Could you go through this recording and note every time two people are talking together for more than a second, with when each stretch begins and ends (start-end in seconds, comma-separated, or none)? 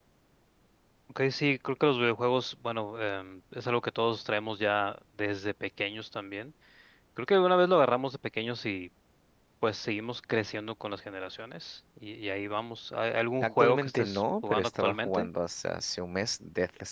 13.4-15.3